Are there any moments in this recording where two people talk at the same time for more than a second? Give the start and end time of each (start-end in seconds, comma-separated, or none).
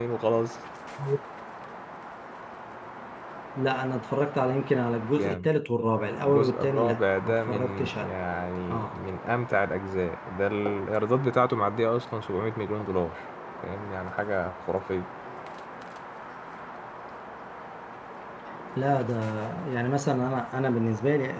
6.2-8.1